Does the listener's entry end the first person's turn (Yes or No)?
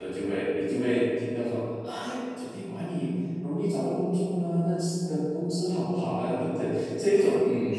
Yes